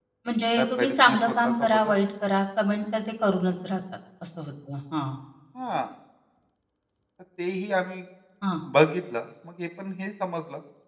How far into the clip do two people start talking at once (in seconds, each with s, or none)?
0.6 s